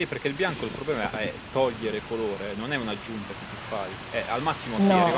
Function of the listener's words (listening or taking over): listening